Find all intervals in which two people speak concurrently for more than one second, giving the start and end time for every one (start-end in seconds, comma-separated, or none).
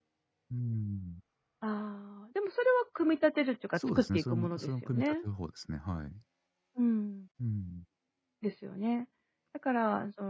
3.8-5.2